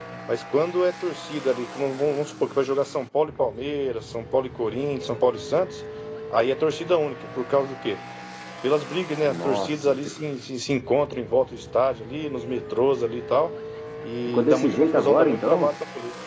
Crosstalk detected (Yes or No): Yes